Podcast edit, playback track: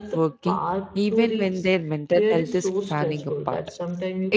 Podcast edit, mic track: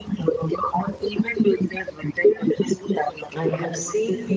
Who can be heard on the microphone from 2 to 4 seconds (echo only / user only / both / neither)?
both